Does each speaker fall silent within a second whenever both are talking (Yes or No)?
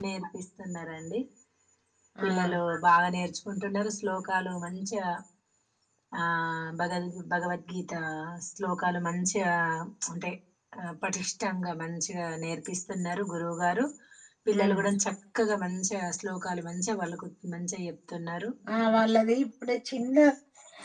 Yes